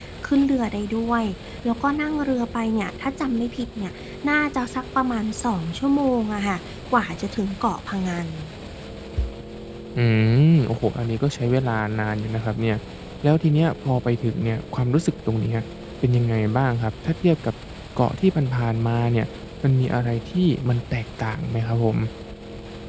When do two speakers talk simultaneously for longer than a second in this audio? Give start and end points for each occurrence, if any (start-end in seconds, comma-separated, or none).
none